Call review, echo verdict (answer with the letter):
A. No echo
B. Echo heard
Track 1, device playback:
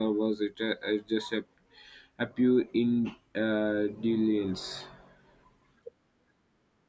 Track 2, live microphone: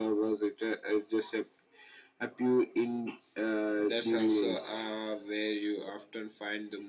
B